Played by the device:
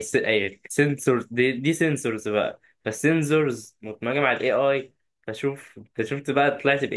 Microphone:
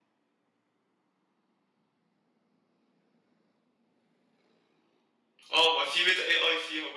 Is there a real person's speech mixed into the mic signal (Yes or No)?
Yes